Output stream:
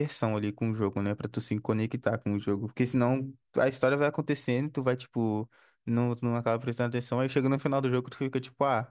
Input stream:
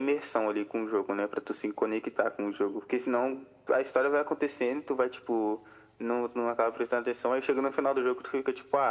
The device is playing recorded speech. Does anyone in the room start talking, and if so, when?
none

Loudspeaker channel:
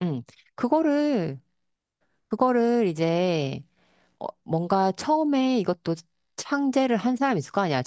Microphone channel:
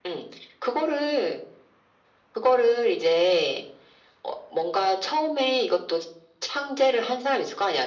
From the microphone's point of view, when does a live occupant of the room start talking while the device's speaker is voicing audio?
none

